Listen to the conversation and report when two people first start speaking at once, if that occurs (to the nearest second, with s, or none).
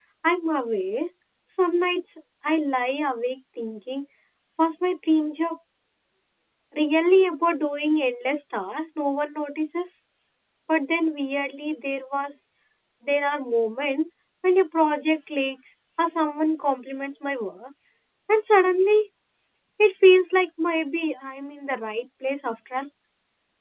none